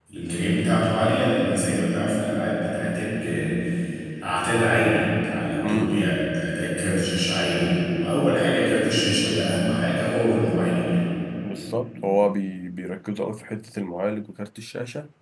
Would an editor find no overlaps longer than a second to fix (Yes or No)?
Yes